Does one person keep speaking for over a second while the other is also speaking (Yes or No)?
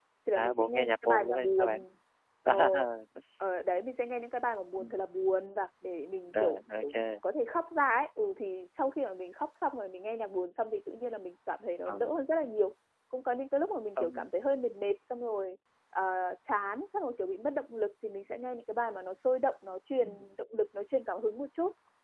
Yes